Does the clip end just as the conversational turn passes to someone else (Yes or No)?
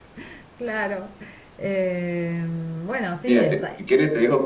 Yes